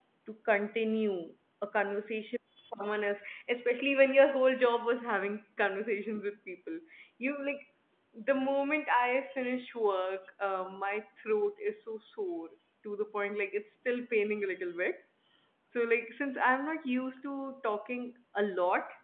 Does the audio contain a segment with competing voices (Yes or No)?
No